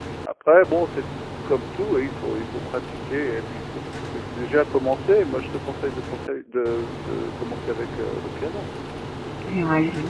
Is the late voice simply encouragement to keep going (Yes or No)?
No